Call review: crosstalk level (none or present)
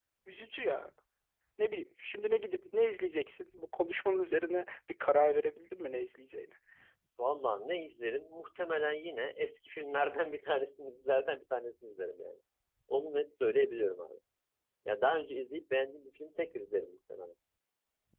none